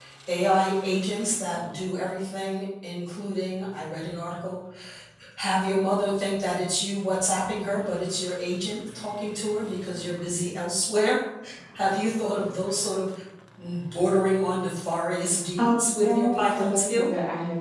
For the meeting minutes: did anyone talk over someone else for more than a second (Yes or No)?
Yes